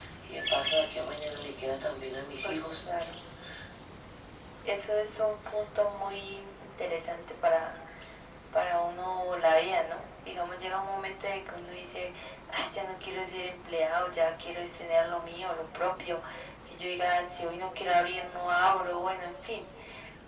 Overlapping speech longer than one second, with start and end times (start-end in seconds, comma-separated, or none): none